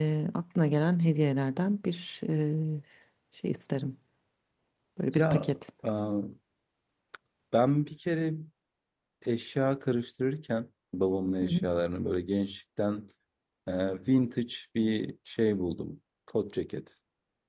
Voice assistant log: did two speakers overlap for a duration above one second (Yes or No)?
No